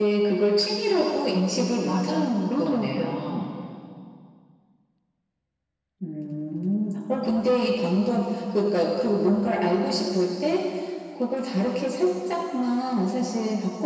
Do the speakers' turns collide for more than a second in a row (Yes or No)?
Yes